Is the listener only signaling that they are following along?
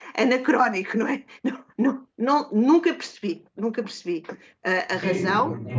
No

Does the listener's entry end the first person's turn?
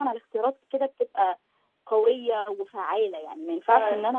No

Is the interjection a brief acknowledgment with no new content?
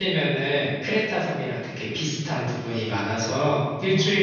Yes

